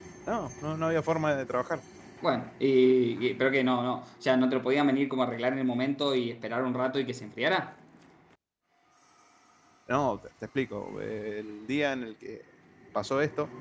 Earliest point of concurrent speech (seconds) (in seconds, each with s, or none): none